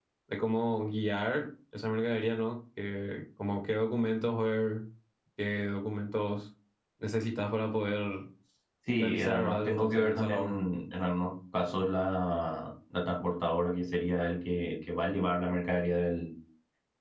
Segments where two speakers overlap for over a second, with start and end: 9.0-10.5

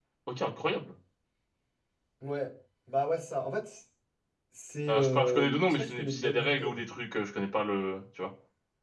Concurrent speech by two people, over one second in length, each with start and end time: 4.9-6.8

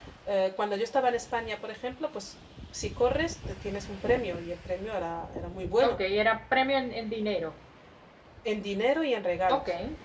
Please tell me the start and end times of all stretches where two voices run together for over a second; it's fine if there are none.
none

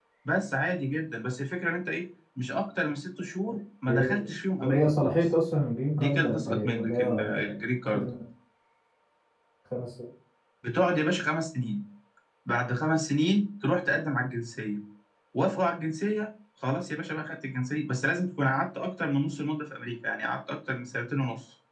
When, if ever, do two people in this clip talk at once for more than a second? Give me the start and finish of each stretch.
3.9-5.1, 5.9-7.5

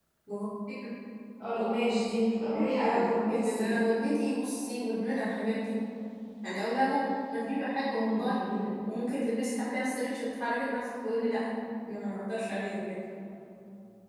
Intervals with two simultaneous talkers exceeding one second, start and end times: 2.5-3.7

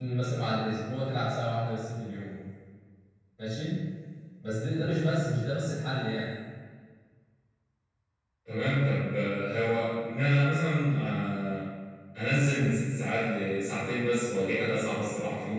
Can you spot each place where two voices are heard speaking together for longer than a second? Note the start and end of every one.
none

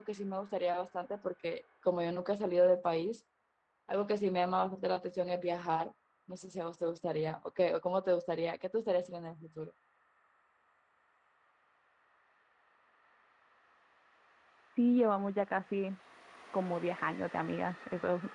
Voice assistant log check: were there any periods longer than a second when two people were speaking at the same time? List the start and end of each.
none

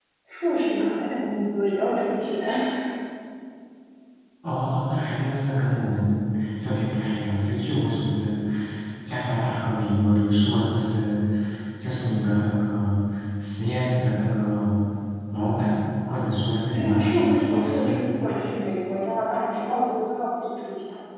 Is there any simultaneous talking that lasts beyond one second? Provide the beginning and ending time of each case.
16.7-18.0

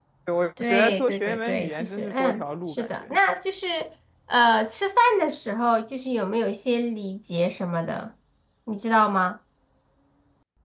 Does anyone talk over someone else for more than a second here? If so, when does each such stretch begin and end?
0.6-3.2

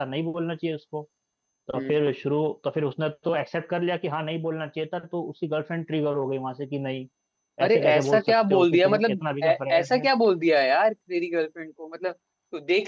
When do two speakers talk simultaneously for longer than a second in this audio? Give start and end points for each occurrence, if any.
7.6-10.1

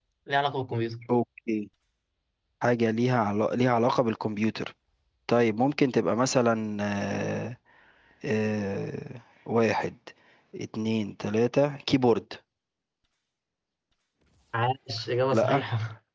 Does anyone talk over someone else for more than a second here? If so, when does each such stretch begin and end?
none

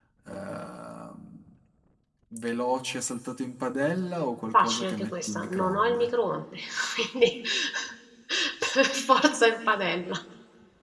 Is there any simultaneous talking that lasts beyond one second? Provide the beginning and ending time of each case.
4.5-6.1

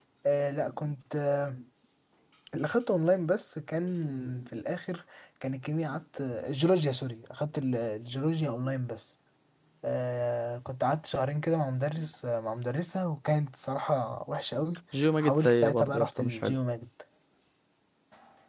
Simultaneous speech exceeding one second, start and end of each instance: 15.2-16.6

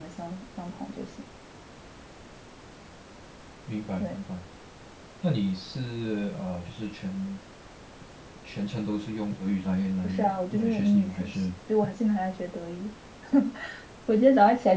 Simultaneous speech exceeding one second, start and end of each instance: 10.0-11.3

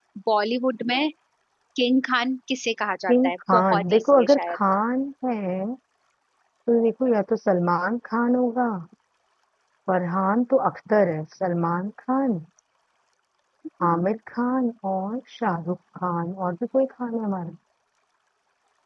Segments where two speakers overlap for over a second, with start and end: 3.1-4.6

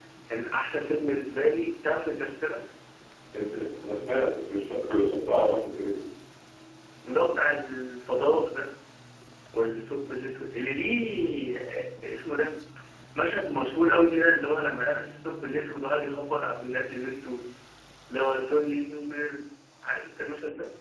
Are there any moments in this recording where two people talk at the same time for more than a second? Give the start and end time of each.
none

